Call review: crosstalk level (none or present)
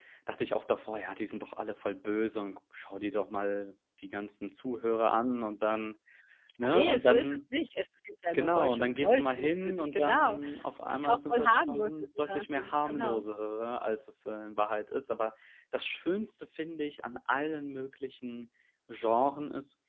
present